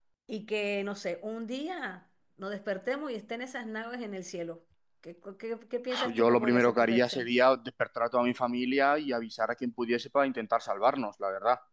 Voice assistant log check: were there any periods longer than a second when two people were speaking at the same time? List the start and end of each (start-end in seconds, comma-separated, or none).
6.0-7.3